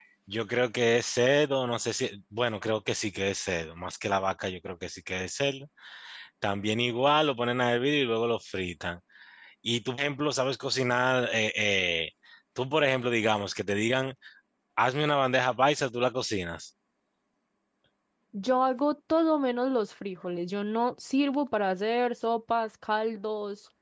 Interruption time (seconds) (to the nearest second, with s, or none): none